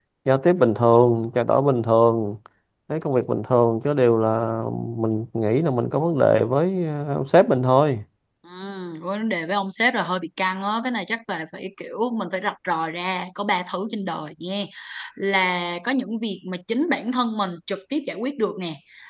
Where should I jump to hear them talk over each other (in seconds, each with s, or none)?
none